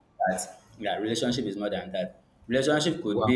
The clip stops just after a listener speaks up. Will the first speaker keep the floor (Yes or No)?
Yes